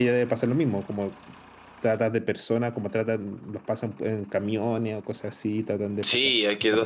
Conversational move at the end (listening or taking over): taking over